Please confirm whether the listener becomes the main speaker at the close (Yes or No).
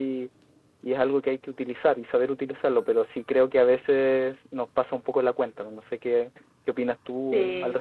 Yes